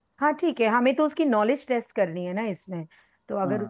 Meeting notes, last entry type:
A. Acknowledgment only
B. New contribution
B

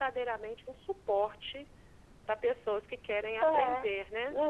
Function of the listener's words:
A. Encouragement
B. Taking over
B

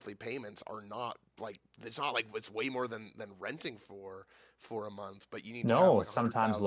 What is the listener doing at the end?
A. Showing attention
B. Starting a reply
B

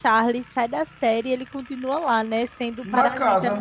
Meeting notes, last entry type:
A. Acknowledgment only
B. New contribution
A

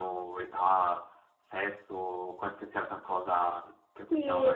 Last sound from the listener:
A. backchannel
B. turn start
B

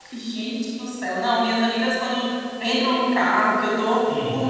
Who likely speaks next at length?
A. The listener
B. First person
B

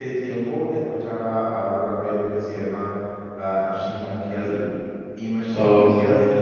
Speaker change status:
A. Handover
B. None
B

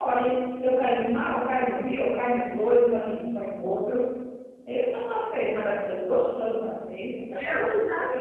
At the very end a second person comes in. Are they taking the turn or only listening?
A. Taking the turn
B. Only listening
A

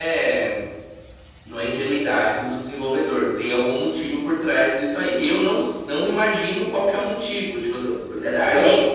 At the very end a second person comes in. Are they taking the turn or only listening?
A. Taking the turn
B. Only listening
B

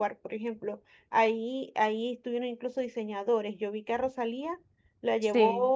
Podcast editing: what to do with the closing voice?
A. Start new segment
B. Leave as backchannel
B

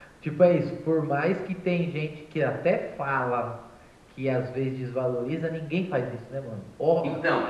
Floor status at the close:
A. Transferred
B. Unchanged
B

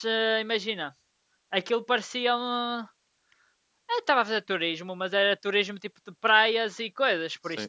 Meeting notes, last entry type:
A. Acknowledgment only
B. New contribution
B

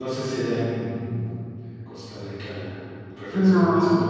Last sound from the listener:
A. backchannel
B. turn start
A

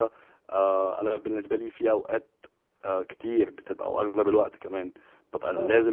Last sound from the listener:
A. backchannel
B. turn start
A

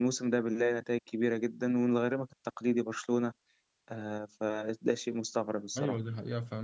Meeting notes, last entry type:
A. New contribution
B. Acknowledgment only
A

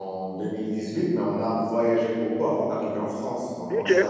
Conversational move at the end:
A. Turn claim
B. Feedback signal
B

